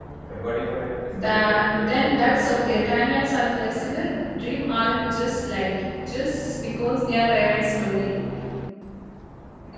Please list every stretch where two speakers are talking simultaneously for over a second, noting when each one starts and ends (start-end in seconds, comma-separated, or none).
1.2-2.8